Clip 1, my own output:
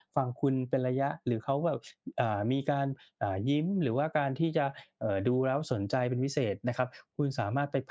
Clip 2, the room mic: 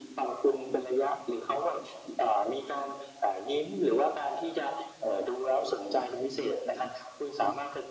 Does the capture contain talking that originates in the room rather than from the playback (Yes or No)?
No